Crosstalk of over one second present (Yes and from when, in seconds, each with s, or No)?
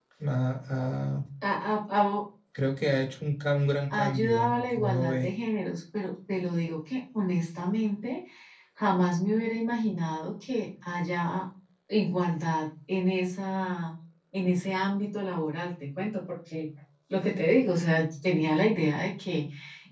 Yes, from 3.9 s